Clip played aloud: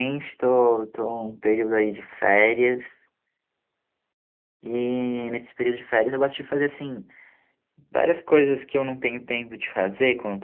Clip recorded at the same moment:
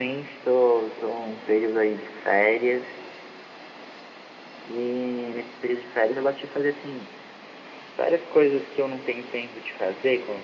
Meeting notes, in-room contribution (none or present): none